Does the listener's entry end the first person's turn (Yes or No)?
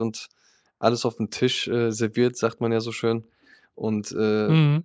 No